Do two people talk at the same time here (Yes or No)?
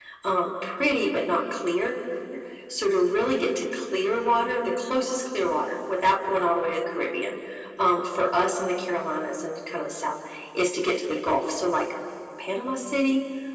No